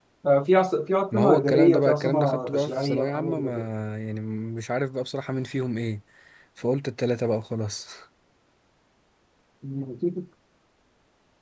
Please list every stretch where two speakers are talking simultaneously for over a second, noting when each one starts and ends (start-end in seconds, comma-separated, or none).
1.1-3.5